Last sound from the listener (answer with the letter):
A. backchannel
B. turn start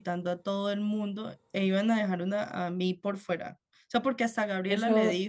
B